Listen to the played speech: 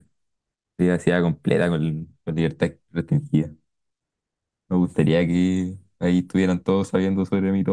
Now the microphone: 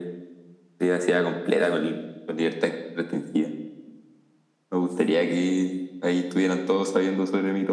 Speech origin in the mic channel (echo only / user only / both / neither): echo only